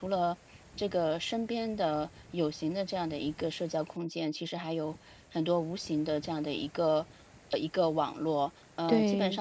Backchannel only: Yes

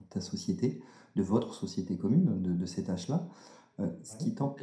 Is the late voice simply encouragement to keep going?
Yes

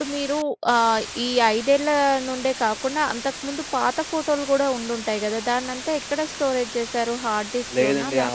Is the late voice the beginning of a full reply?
Yes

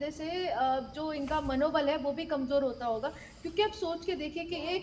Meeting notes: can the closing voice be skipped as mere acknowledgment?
Yes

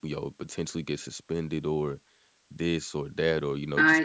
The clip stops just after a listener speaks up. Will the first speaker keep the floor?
Yes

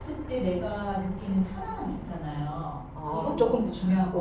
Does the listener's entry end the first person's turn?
Yes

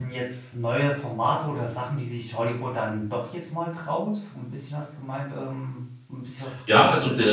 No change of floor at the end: No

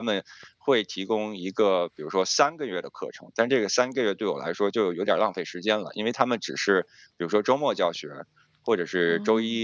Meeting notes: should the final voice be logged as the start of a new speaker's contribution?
No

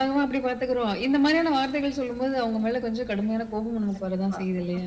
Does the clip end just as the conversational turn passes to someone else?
Yes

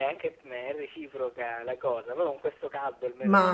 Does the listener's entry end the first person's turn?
Yes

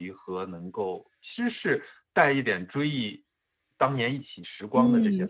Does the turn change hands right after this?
Yes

